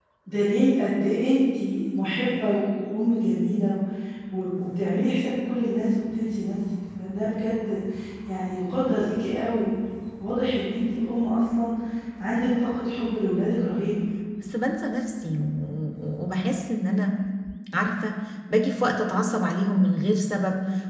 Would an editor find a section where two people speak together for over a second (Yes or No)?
No